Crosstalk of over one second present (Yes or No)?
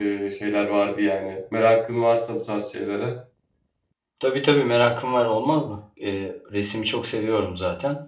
No